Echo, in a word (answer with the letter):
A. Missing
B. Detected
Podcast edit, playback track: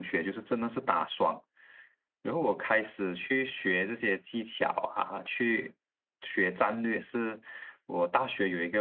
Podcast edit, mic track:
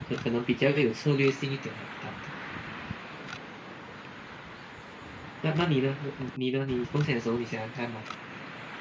A